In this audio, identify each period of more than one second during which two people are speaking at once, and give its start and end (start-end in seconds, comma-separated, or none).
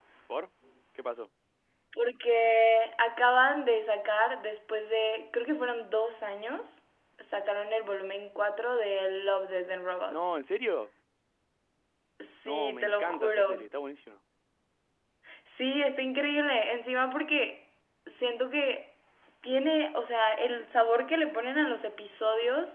12.4-13.7